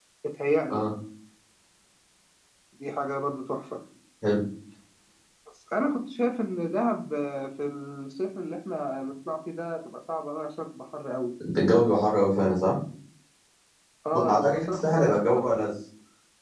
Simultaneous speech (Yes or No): Yes